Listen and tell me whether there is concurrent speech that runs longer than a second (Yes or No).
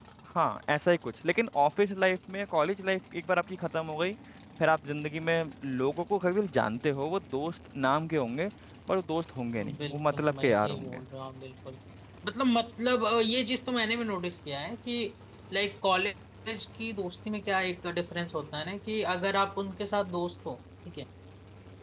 Yes